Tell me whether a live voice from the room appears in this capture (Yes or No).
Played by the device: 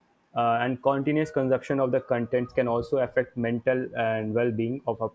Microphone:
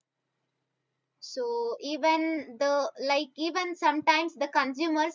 Yes